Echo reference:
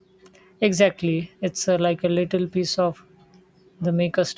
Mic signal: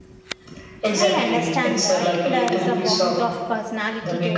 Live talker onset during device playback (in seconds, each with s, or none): 0.9 s